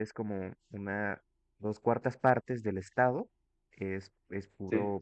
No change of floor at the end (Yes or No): Yes